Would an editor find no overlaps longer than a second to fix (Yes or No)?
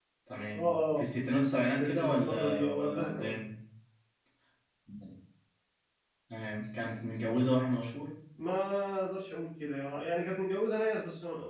No